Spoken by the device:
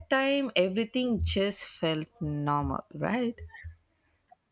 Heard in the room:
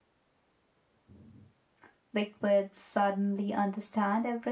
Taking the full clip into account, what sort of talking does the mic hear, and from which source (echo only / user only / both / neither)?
user only